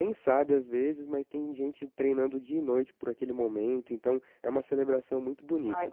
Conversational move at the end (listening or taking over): taking over